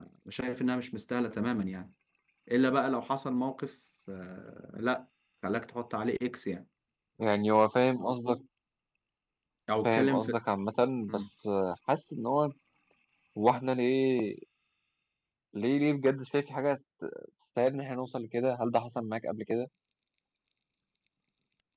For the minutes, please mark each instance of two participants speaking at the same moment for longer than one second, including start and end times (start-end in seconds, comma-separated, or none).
none